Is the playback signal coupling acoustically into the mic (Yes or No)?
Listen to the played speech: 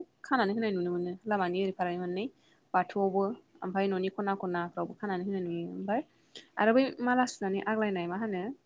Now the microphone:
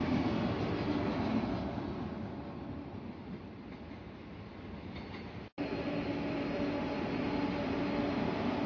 No